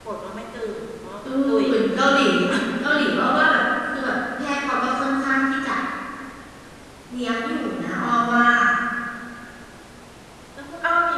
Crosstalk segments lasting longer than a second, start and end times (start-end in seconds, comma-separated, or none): none